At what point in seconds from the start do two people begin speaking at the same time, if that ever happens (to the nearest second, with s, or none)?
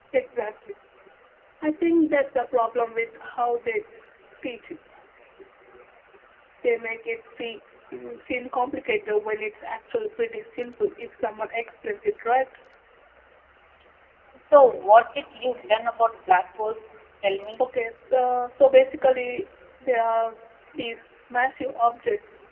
none